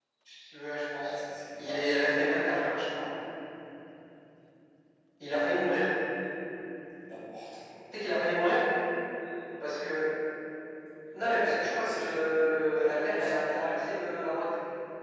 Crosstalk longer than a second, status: present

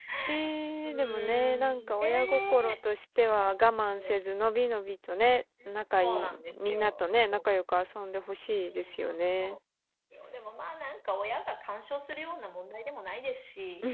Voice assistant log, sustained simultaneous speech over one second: present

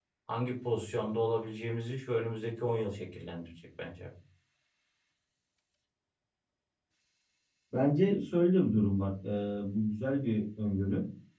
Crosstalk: none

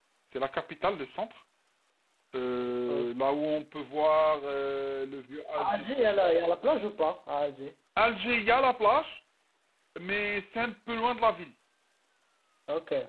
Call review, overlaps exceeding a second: none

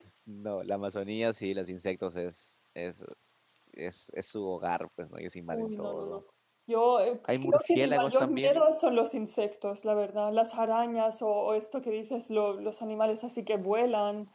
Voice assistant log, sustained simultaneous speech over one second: present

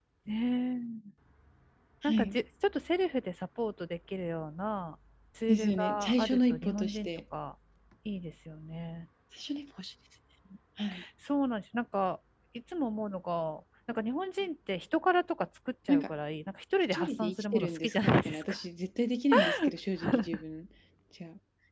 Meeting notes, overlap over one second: present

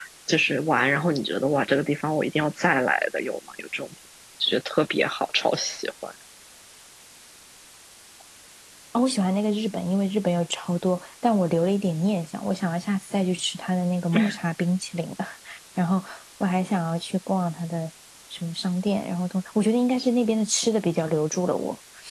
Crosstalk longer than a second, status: none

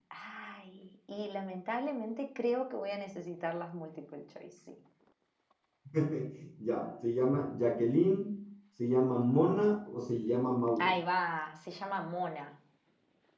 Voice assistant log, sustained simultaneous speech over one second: none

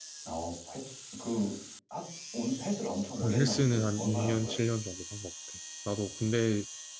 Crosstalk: present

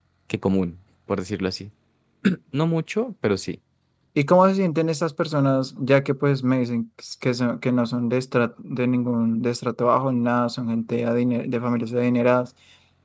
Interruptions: none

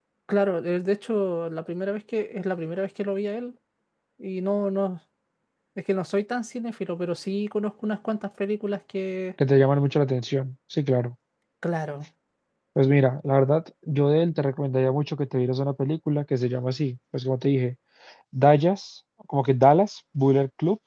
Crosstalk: none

